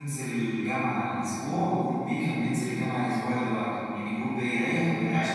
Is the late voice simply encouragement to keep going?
Yes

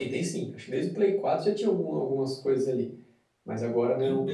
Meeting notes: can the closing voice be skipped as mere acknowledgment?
Yes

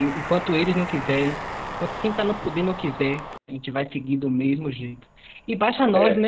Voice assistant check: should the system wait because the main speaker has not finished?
Yes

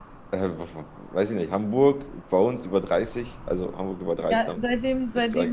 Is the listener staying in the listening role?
No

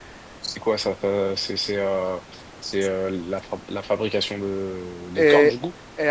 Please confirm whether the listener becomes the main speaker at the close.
Yes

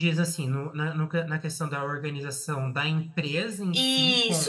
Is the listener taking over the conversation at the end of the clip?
Yes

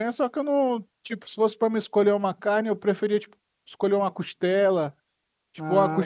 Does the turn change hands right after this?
No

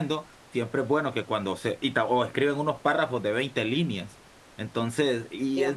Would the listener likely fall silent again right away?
Yes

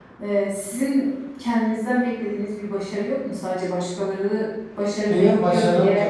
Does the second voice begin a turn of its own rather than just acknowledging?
Yes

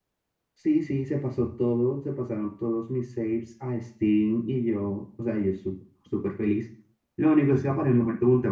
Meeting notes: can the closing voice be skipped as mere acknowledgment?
Yes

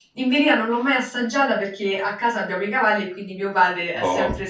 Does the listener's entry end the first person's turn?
No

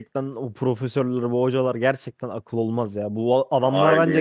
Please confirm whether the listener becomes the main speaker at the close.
No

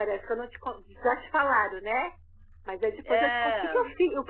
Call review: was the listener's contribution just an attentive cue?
Yes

